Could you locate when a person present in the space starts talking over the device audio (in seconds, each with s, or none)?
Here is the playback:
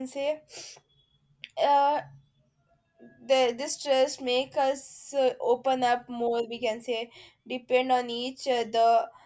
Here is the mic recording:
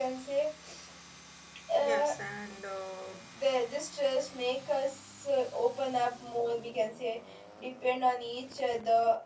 1.8 s